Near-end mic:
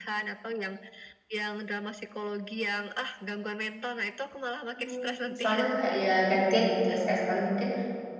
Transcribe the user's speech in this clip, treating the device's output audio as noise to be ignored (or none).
Hmm, misalnya kayak ya gantian gitu ya, sekali sekali mungkin